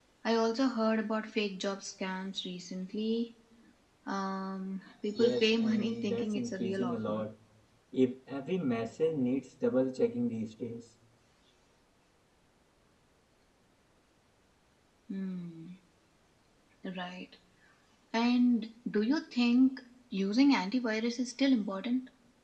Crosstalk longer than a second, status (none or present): present